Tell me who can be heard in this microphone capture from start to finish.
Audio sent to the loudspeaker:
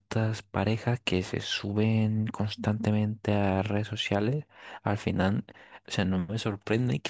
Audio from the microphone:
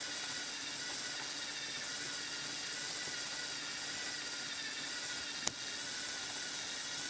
neither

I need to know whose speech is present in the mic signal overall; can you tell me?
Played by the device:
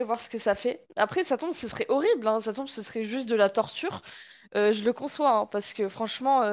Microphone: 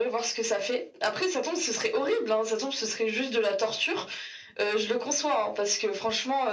echo only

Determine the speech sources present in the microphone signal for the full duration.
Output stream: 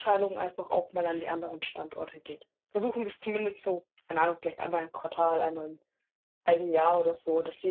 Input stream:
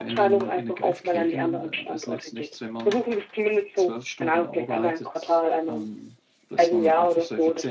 both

